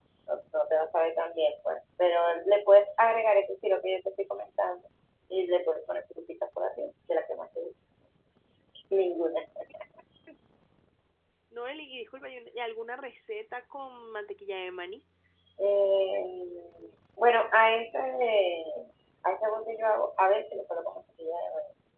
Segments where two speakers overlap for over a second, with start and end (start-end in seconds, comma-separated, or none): none